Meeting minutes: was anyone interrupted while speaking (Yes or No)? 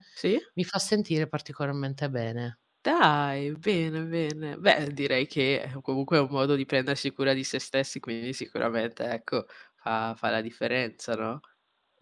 No